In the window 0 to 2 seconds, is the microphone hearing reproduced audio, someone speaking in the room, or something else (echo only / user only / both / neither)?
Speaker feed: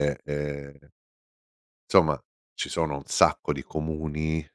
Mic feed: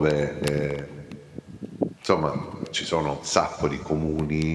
echo only